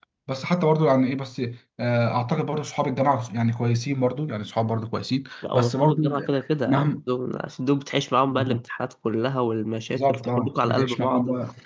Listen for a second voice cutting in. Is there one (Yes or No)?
Yes